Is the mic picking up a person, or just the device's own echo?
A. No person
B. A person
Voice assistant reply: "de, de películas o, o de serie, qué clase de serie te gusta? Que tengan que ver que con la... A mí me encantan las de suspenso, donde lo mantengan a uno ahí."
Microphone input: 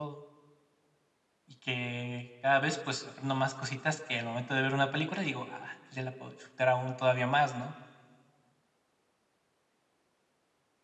B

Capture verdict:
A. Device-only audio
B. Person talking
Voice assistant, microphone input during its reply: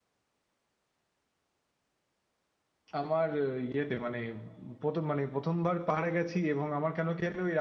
B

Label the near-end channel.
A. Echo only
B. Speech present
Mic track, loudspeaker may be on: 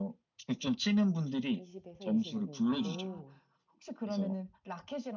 B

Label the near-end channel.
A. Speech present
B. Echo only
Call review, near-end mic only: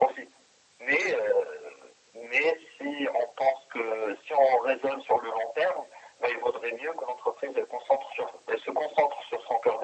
B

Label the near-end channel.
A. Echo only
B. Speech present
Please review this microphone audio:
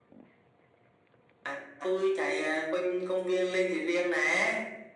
A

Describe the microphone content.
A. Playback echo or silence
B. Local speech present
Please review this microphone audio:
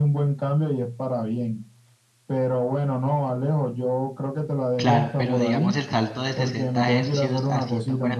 B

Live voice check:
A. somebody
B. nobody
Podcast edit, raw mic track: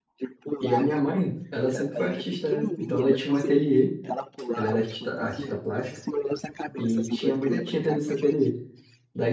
A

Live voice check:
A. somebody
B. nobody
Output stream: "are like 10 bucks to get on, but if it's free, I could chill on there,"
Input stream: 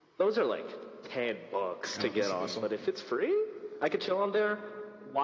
A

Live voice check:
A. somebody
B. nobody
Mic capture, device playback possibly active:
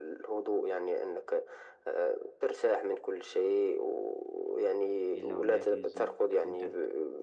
A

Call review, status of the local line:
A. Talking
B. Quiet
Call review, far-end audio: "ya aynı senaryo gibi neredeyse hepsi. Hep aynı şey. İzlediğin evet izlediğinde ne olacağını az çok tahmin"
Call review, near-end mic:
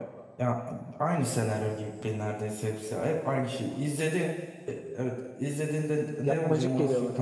A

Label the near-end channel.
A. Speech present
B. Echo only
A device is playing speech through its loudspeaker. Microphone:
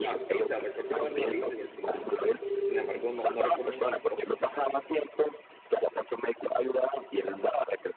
A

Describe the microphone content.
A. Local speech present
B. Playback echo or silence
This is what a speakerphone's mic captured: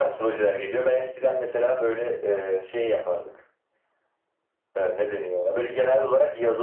B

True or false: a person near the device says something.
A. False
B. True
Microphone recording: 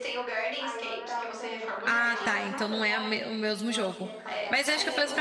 B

